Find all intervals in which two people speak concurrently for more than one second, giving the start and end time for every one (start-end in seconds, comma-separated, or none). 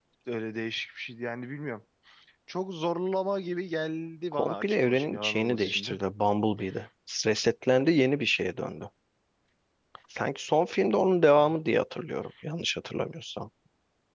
4.3-6.0